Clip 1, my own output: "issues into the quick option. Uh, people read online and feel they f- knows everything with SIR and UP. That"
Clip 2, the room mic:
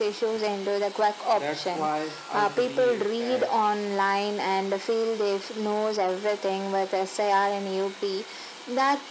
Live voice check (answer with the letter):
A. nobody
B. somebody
B